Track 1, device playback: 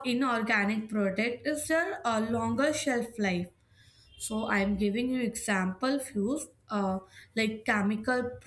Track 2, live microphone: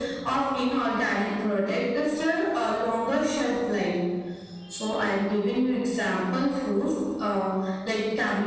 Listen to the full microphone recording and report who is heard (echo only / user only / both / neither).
echo only